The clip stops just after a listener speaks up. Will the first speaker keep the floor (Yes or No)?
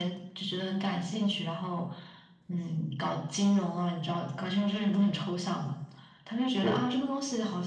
Yes